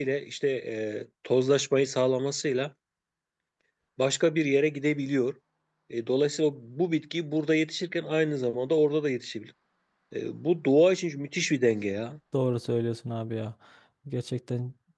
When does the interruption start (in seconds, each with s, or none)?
none